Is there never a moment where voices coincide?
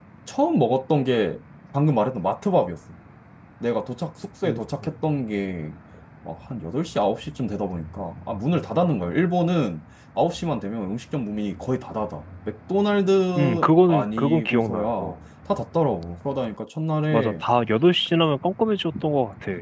No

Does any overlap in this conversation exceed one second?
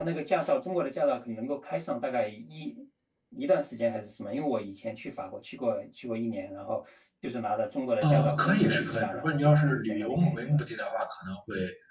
Yes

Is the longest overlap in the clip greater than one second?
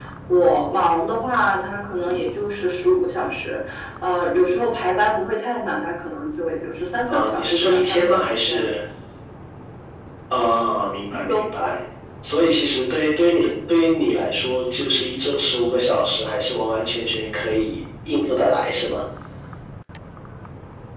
Yes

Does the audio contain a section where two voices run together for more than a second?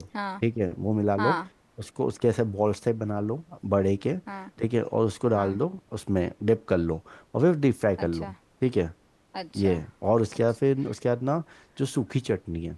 No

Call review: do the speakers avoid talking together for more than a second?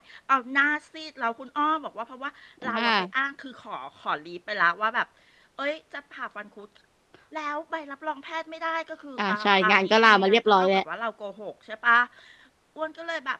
No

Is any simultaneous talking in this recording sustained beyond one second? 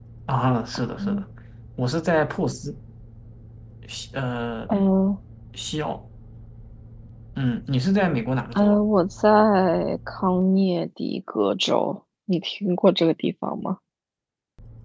No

